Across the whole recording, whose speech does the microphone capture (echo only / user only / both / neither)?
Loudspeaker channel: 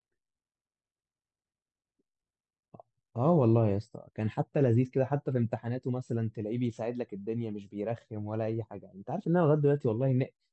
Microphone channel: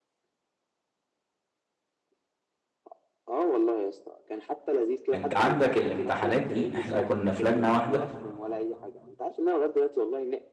both